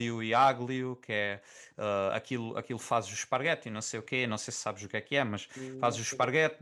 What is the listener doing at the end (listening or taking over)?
listening